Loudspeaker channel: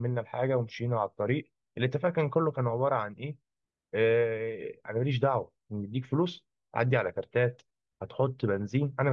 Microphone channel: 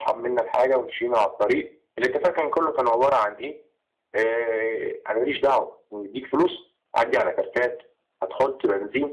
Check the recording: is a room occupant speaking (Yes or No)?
No